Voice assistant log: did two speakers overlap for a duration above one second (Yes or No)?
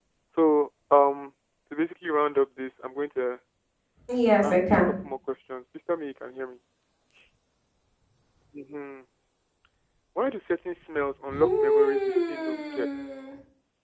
Yes